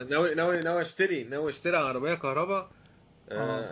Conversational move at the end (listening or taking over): listening